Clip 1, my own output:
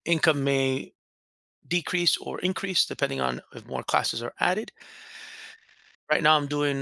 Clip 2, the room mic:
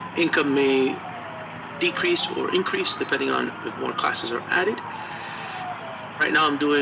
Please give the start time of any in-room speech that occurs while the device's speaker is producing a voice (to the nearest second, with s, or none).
none